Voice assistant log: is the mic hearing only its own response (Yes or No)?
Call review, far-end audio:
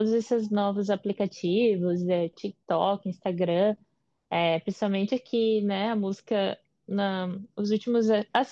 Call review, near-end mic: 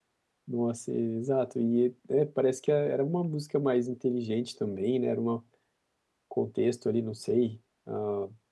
No